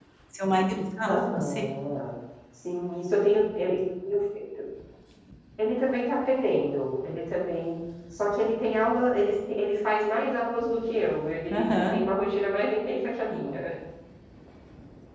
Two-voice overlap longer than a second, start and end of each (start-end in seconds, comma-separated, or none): none